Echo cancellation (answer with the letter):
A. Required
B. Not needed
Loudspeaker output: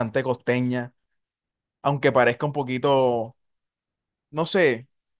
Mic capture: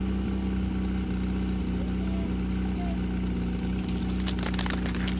B